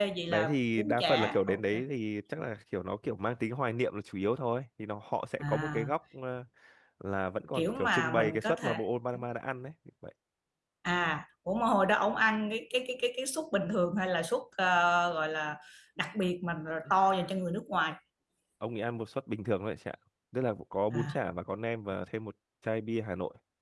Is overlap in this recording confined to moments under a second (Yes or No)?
No